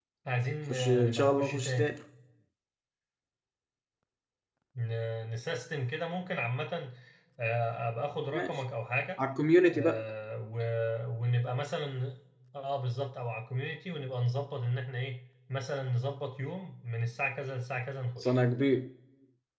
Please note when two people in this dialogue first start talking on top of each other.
0.7 s

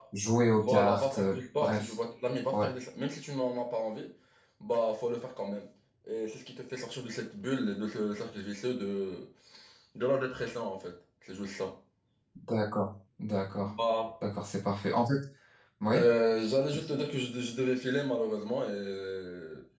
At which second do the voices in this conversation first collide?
0.5 s

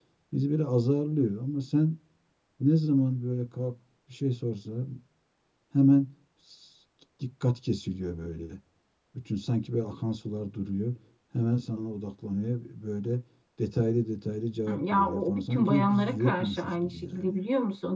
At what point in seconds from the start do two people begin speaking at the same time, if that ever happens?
14.7 s

